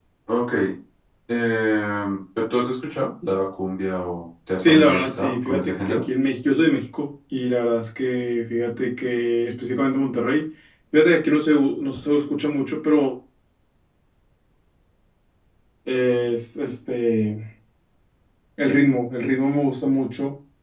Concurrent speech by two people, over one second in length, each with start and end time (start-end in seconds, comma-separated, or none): 4.6-6.0